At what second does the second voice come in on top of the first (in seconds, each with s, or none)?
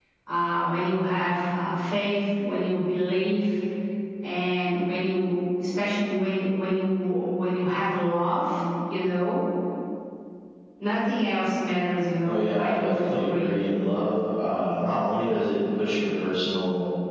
12.2 s